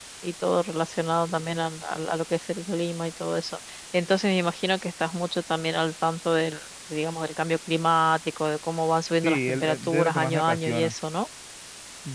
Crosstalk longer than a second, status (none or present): present